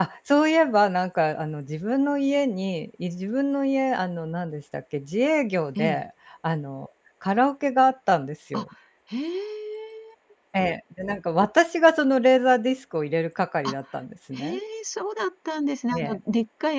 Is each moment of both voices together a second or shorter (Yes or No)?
Yes